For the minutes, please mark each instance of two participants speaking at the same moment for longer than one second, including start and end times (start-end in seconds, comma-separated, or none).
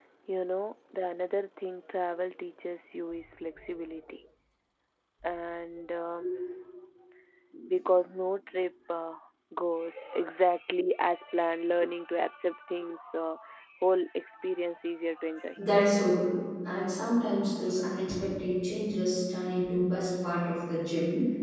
none